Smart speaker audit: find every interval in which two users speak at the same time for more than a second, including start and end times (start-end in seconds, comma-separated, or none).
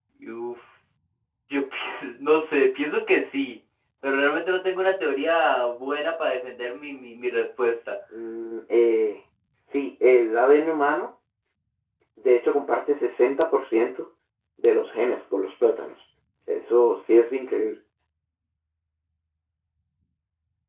none